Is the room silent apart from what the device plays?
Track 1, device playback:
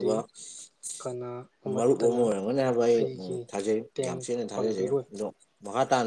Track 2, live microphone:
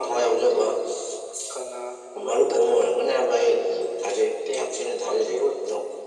Yes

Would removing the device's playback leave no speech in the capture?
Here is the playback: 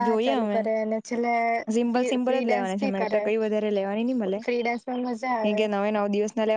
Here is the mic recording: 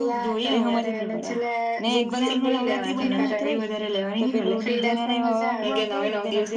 No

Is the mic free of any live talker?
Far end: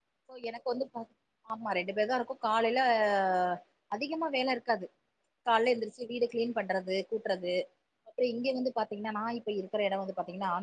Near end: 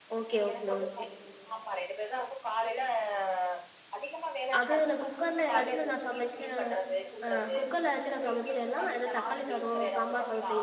No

